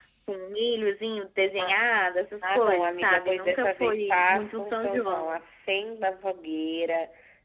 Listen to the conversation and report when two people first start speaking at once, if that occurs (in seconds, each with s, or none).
2.5 s